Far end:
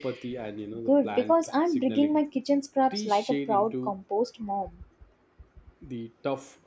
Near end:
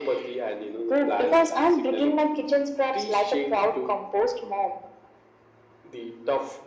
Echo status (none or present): present